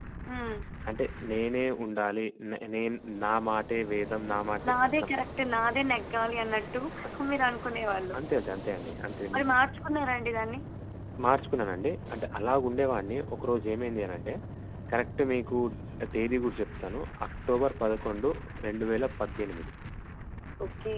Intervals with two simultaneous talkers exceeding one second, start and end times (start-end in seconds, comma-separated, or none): none